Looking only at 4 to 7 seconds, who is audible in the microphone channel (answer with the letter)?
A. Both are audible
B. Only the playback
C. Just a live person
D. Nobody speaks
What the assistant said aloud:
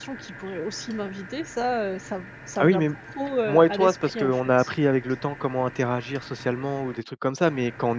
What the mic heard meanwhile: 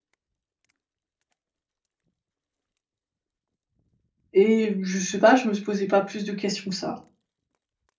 C